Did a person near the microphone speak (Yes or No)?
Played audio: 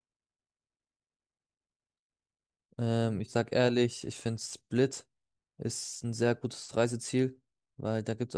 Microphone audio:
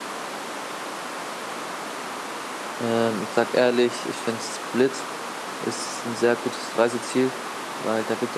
No